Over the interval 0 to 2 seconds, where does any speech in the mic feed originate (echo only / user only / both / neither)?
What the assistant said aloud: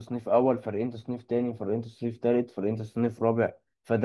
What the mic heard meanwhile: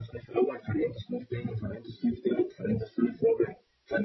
echo only